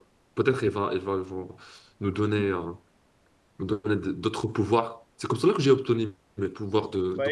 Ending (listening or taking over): taking over